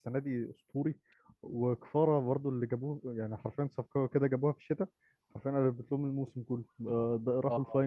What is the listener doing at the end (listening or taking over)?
taking over